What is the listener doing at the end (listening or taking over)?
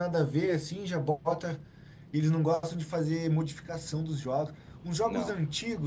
listening